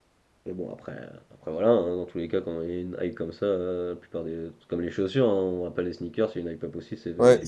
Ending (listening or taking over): taking over